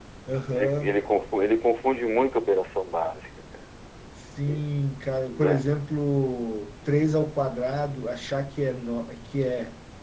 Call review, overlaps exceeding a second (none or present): none